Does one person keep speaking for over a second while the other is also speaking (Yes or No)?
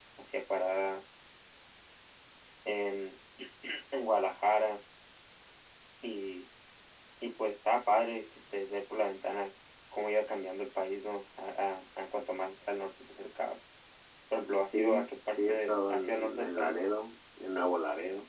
Yes